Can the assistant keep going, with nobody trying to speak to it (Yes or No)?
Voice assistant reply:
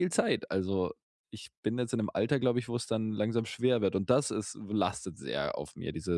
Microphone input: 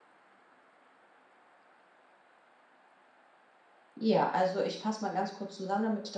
No